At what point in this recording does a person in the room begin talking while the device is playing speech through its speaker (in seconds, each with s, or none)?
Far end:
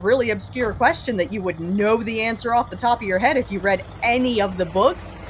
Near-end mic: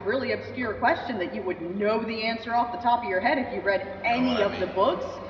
4.0 s